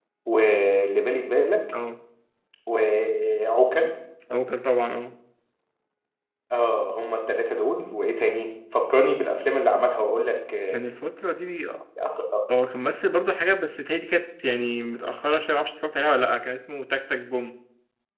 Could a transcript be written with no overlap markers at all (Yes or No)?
Yes